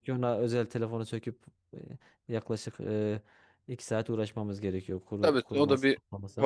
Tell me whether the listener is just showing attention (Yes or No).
No